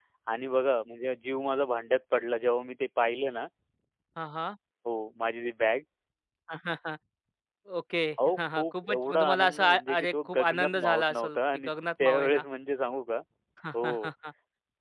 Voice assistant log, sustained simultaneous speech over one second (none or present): present